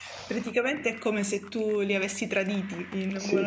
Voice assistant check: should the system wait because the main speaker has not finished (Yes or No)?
No